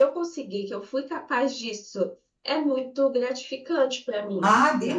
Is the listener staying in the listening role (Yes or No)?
No